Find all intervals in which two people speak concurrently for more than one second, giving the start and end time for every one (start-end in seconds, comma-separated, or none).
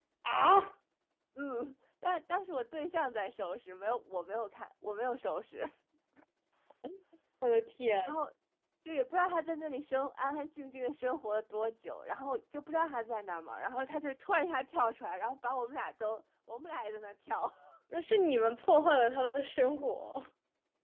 none